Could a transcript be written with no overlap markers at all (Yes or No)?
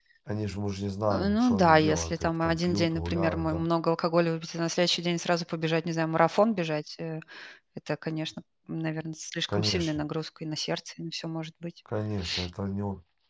No